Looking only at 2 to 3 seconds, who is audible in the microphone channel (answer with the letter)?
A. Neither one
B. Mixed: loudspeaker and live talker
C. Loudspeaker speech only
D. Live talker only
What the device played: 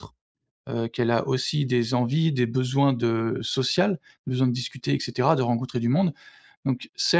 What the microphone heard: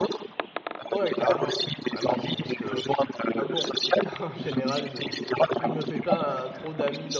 B